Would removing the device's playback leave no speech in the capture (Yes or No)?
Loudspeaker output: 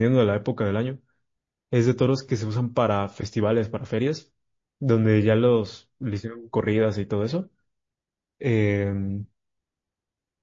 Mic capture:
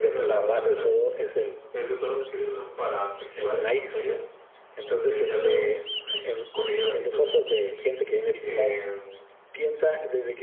No